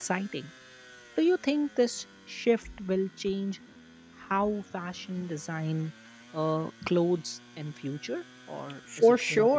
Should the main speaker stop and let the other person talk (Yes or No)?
Yes